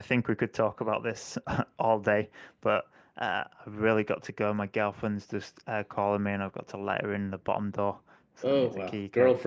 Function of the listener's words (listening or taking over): taking over